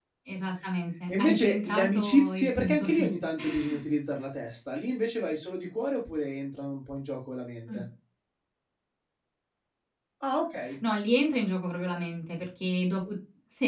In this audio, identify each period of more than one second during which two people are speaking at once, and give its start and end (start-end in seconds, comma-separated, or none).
1.1-3.1